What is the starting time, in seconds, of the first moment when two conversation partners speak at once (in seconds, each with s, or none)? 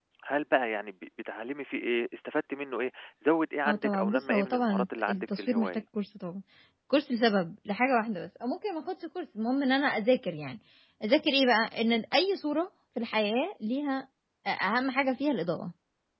3.6 s